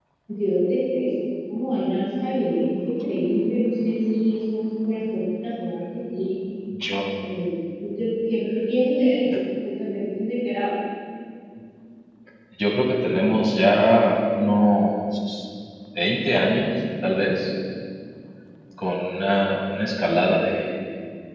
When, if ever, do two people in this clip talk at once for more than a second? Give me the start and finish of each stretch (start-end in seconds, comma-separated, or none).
none